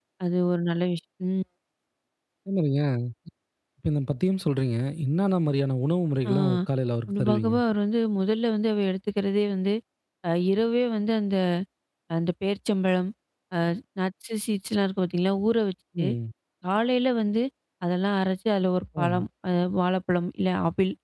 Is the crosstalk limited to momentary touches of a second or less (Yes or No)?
Yes